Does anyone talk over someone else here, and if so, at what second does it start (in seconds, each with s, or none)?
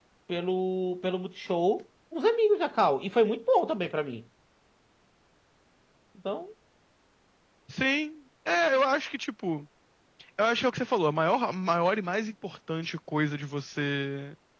none